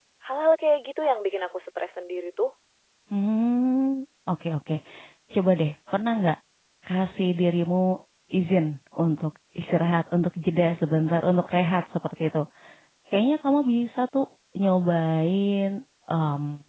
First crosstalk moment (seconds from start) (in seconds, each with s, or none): none